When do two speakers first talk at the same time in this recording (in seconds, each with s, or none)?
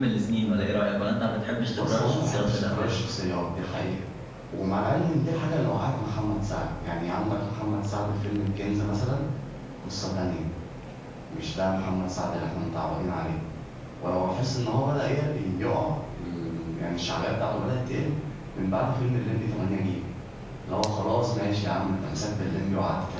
1.7 s